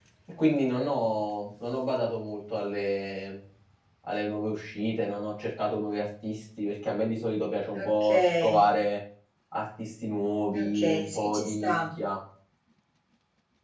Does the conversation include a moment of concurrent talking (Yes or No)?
Yes